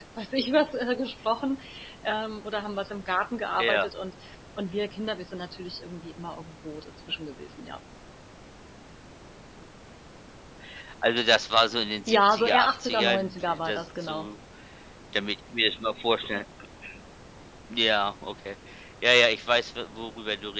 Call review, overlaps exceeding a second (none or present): present